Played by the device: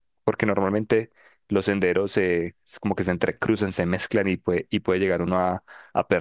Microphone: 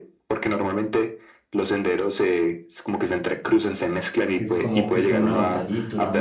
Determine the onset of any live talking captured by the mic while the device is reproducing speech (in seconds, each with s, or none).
4.3 s